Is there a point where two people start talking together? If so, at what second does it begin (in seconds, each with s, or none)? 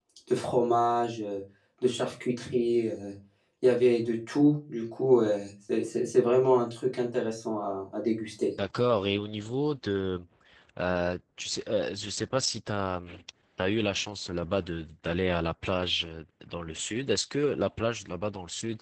none